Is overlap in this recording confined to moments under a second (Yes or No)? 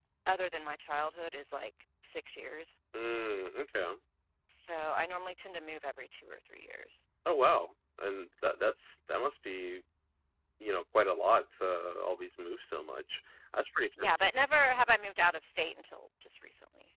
Yes